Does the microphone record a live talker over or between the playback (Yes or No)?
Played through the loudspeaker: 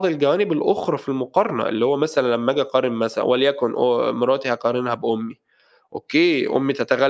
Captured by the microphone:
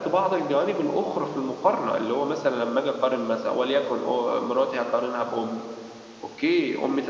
No